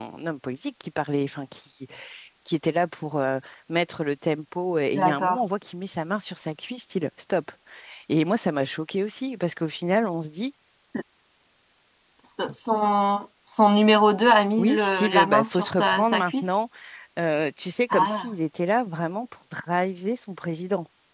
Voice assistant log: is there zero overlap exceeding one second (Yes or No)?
No